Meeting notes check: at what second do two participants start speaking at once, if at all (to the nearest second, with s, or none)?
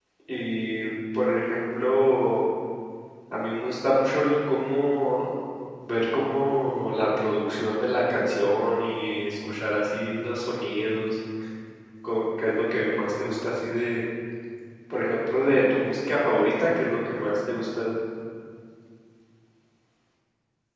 none